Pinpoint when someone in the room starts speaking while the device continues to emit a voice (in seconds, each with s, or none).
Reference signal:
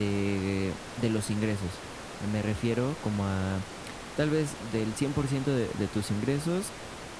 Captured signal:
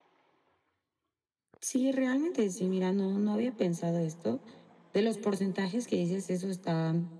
1.6 s